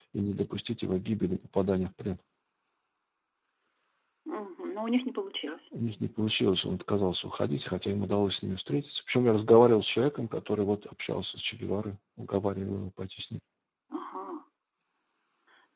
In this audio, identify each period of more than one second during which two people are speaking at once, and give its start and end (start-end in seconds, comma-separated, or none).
none